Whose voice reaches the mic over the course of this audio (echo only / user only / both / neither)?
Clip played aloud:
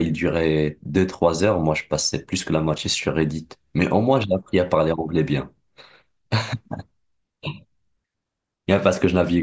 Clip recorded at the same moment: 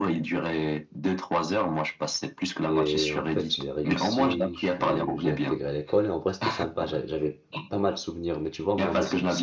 both